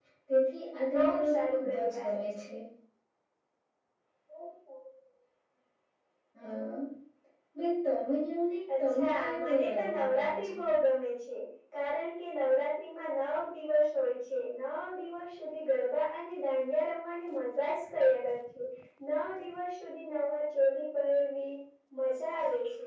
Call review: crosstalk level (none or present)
present